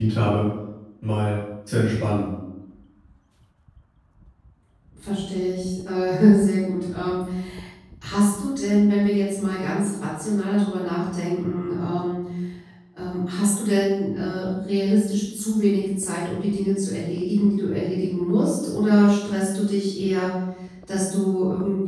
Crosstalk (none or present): none